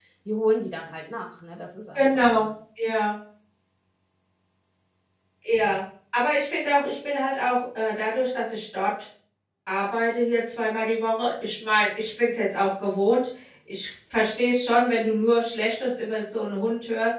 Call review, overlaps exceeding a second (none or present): none